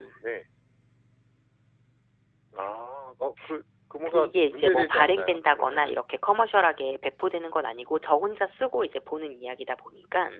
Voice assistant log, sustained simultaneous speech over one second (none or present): present